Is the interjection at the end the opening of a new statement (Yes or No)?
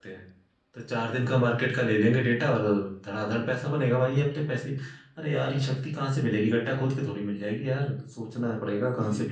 Yes